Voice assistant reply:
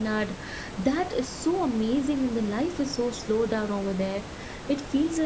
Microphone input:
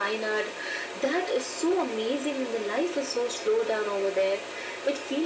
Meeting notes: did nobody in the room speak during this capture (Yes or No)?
Yes